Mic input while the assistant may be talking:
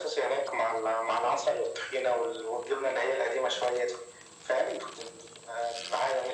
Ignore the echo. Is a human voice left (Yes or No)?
No